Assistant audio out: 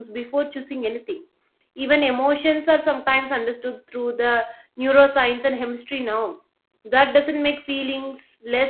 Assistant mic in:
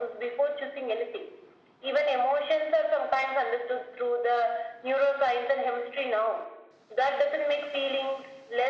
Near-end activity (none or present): none